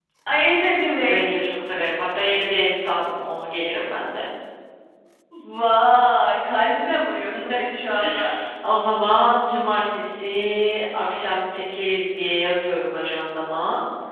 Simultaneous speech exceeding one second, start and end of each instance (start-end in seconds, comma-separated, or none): none